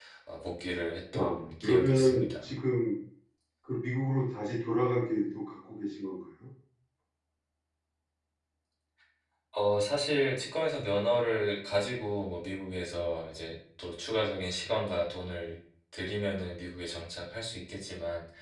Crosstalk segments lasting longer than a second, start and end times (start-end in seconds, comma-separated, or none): 1.2-2.5